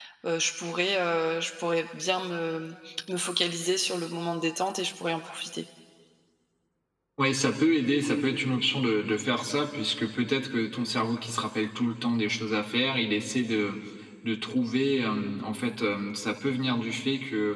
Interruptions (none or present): none